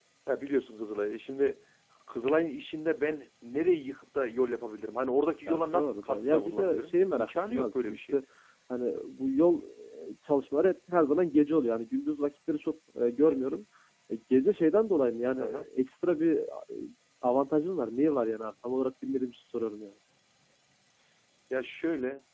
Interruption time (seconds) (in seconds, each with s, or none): 5.5 s